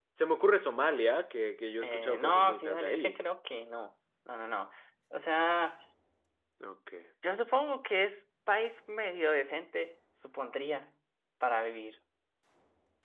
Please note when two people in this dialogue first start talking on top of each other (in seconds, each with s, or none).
1.8 s